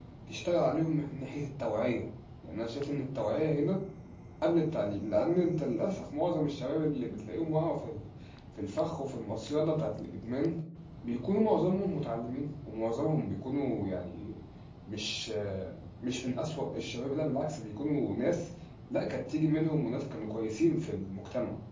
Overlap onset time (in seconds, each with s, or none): none